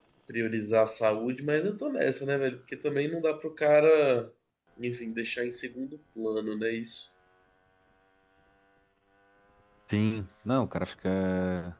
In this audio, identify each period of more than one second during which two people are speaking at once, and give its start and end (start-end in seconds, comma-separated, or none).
none